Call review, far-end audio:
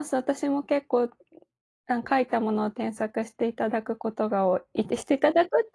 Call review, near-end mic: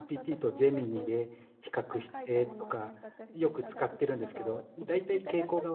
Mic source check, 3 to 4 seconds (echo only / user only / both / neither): both